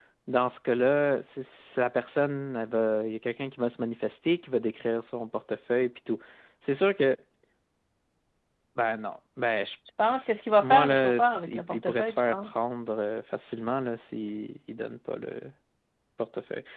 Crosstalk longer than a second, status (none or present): present